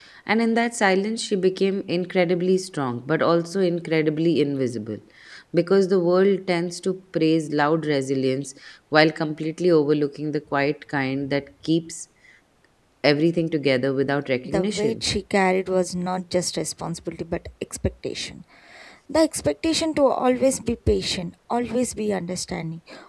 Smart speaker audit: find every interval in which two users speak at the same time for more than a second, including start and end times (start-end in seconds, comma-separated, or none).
none